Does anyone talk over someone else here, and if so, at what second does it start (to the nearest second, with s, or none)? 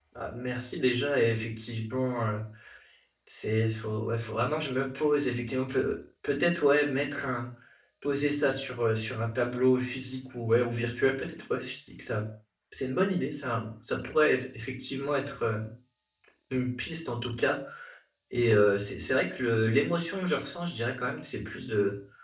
none